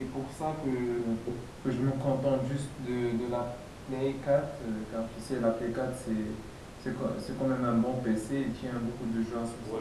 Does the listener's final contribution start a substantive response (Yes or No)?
Yes